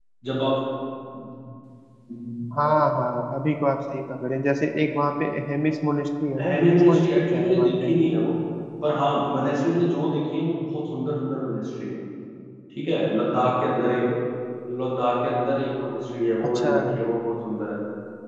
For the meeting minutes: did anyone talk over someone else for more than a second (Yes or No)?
Yes